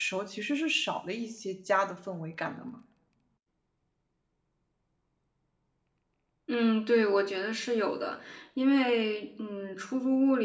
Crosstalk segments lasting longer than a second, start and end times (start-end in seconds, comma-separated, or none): none